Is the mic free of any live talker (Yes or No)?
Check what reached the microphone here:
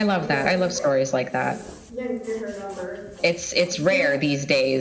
No